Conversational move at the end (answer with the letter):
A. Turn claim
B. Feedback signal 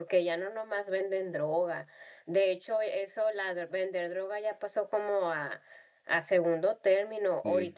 B